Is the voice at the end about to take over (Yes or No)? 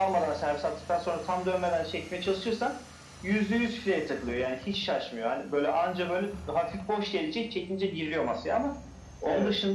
No